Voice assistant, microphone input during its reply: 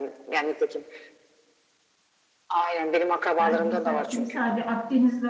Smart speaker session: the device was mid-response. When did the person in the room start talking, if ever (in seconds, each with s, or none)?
3.4 s